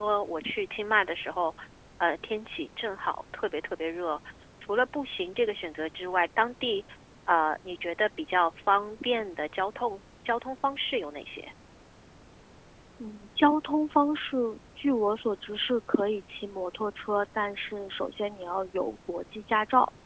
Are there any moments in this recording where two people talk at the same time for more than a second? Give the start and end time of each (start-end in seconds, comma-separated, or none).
none